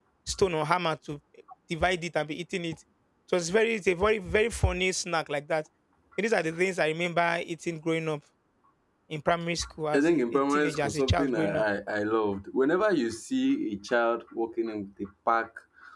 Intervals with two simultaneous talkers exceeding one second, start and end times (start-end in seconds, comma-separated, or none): 9.9-11.6